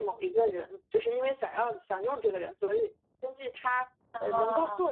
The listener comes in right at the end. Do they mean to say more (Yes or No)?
No